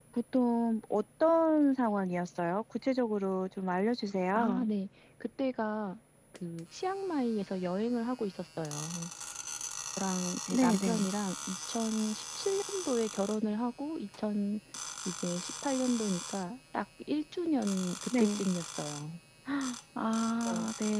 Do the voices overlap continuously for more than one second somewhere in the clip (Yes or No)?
No